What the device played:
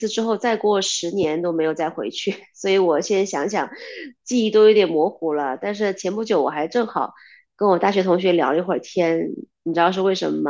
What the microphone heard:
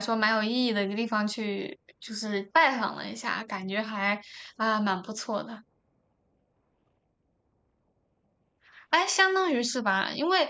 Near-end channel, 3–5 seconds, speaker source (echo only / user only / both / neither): user only